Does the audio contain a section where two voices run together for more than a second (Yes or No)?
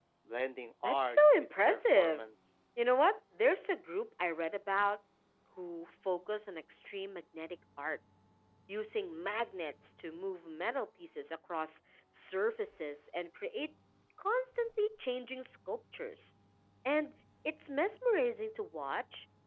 Yes